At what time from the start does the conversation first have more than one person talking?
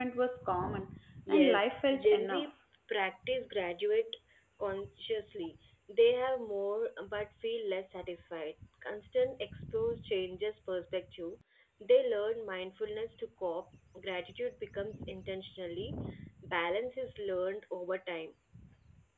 1.3 s

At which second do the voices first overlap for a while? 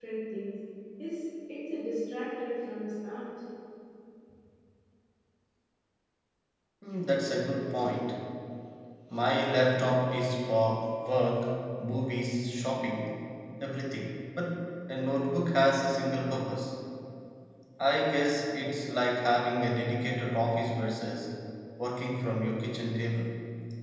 none

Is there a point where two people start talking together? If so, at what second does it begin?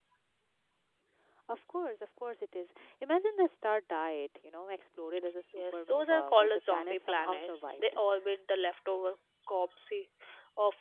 5.5 s

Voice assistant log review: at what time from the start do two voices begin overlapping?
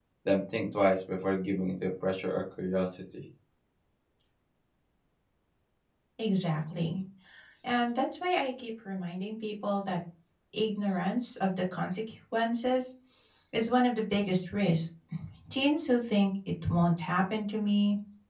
none

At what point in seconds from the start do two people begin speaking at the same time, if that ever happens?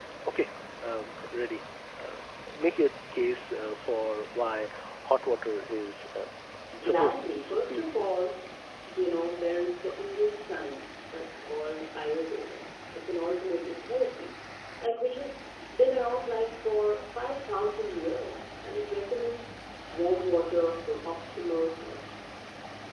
6.8 s

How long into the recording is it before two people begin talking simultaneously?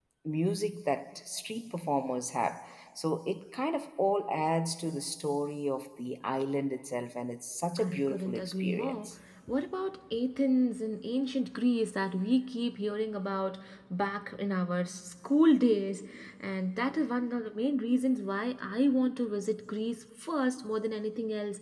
7.8 s

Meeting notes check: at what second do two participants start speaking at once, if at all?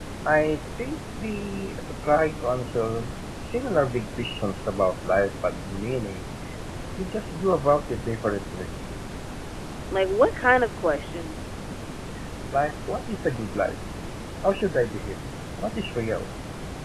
none

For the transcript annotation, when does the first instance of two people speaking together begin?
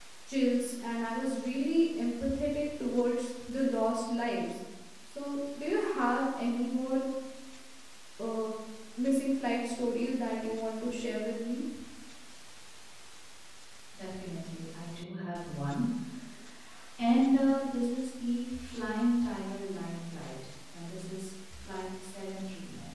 none

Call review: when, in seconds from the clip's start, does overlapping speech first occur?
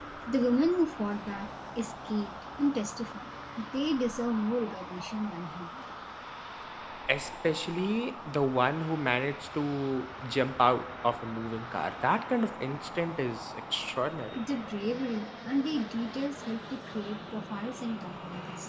none

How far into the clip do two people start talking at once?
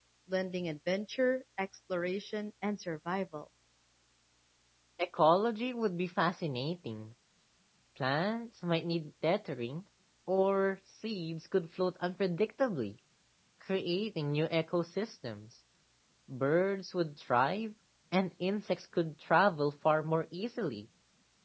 none

